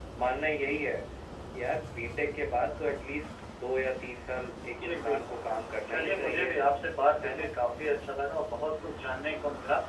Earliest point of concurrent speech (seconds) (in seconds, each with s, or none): 4.8 s